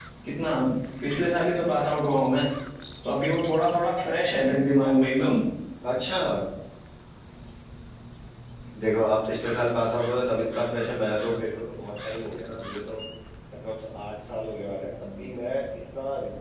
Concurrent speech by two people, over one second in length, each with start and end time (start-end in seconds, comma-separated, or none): none